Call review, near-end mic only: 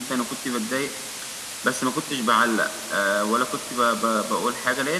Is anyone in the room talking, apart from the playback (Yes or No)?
No